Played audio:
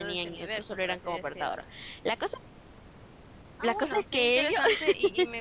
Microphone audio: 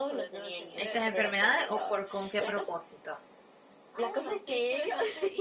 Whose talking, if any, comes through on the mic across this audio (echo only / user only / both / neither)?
both